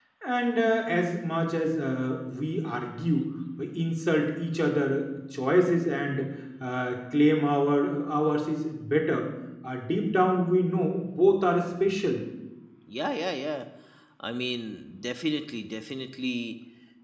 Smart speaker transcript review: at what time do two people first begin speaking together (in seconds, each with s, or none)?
none